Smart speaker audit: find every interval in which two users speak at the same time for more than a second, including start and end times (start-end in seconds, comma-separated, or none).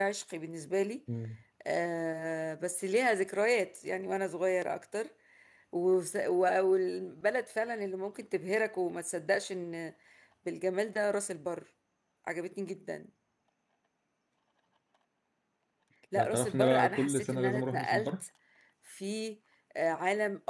16.1-18.1